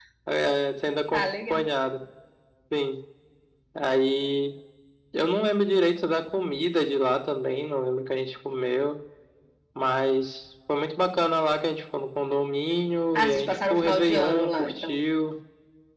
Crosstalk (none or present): present